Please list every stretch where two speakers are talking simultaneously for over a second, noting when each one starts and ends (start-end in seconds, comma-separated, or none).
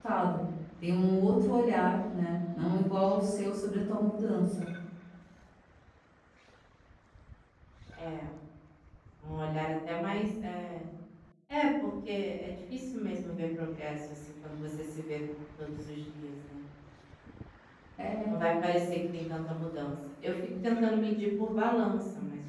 none